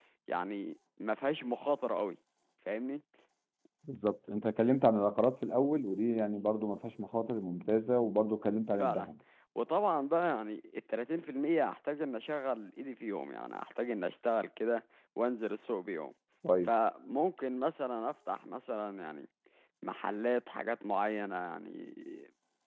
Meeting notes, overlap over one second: none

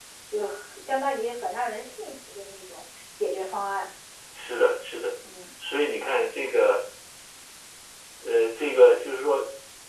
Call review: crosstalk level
none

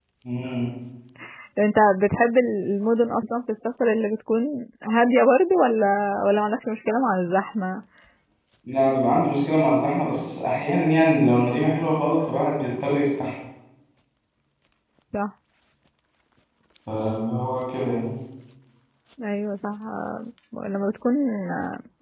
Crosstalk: none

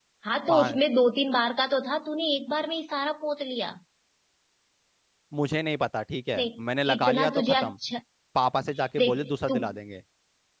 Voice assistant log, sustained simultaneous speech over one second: present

